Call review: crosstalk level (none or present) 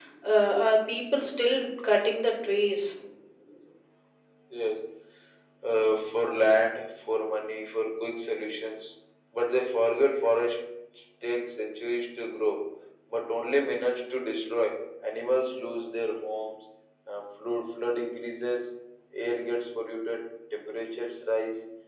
none